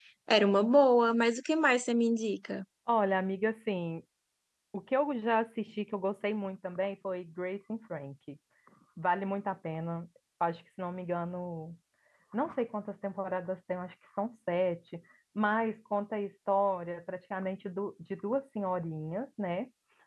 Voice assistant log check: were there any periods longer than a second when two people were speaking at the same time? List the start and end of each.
none

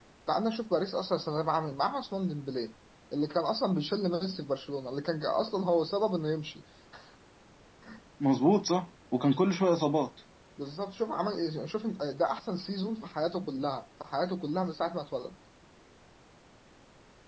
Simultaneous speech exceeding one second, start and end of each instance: none

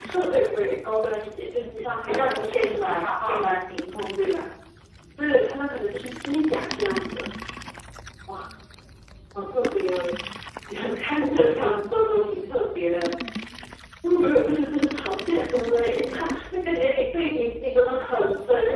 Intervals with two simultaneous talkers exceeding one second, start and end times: 2.1-3.4

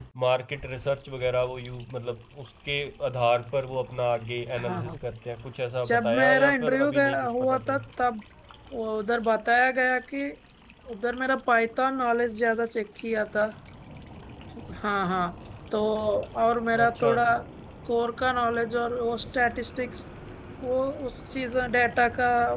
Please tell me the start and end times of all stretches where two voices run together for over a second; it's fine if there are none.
5.8-7.8

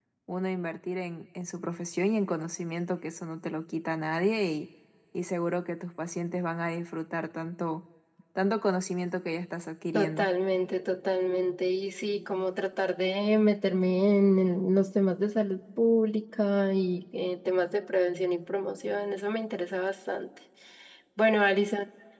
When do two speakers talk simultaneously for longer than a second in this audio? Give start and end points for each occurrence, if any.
none

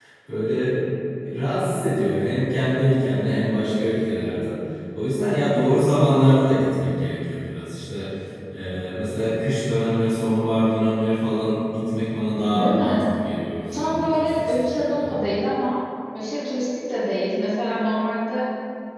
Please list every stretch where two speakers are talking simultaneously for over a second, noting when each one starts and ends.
13.7-15.2

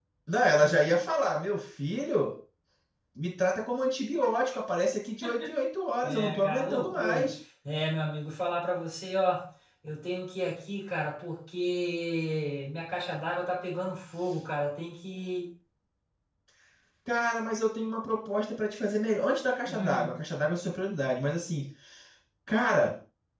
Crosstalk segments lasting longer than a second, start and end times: 6.0-7.3

